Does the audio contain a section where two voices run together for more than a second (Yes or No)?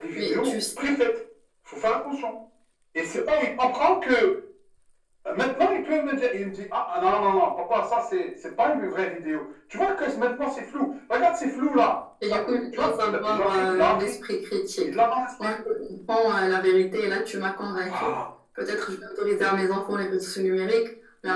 Yes